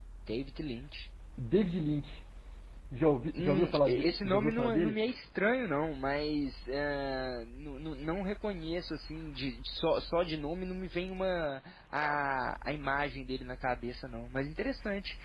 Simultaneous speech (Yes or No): Yes